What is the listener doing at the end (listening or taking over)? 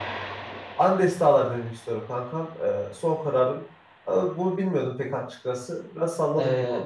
taking over